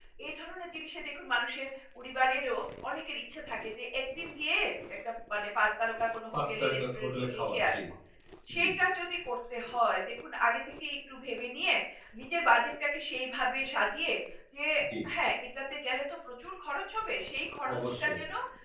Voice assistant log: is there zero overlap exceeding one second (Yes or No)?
No